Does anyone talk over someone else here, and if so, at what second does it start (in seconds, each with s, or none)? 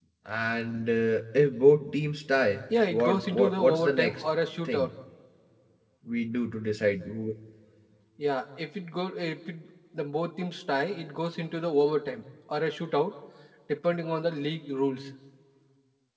2.7 s